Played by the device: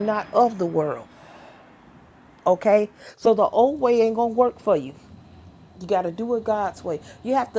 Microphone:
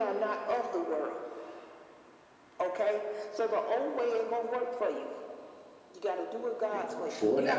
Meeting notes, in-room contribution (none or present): present